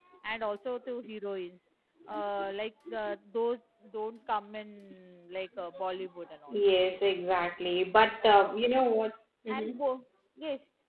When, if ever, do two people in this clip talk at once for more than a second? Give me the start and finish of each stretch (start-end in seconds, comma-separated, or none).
none